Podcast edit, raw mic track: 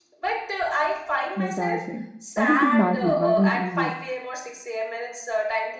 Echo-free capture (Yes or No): No